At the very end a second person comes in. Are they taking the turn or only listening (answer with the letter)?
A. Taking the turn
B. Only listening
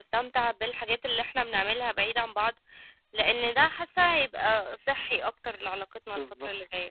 A